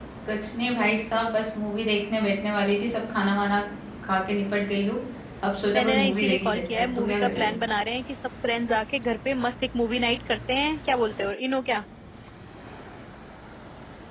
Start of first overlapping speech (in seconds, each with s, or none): 5.7 s